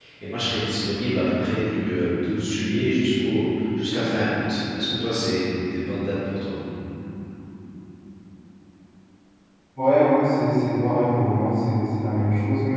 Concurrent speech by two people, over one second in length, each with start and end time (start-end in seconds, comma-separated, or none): none